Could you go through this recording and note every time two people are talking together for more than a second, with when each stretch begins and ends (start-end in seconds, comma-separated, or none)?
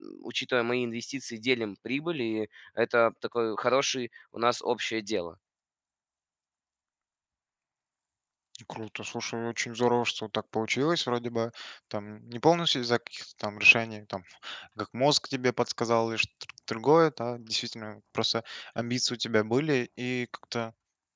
none